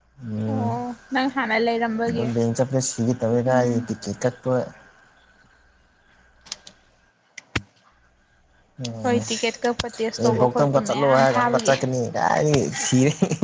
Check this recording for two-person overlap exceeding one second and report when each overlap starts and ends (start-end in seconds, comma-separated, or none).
10.2-11.7